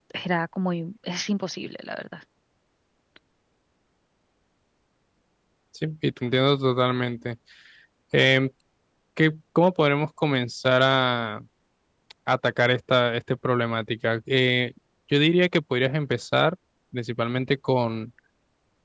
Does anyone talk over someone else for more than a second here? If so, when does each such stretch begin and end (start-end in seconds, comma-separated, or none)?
none